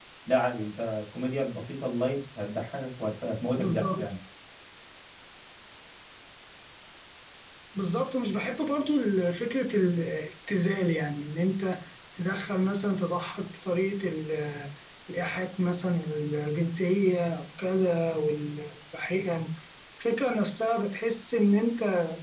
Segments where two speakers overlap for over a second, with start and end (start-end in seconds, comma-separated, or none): none